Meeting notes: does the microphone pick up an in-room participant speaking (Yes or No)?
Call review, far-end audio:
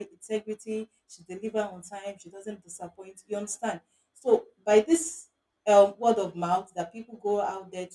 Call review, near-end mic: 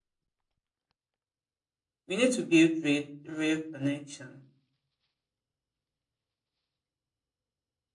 Yes